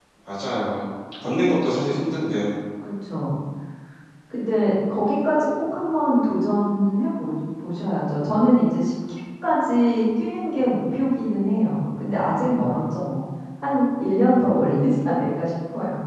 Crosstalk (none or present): none